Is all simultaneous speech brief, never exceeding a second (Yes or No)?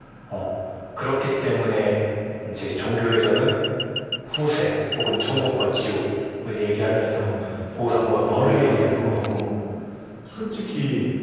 No